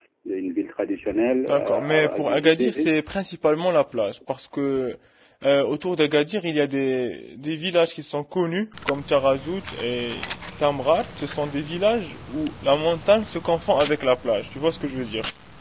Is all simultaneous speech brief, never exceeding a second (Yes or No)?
No